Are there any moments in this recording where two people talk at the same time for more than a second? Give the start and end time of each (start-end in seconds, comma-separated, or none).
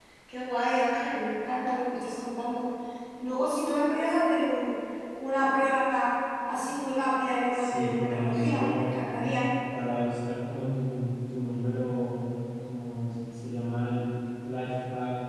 7.5-8.8